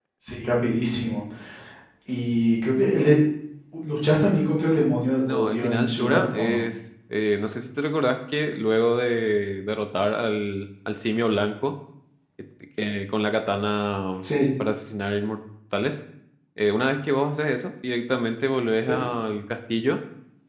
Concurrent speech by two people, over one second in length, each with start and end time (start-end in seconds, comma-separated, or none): 5.3-6.6